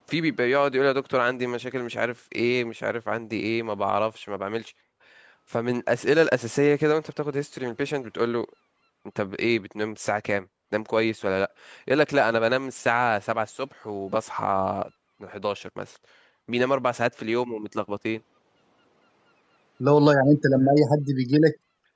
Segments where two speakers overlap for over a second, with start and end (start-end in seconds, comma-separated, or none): none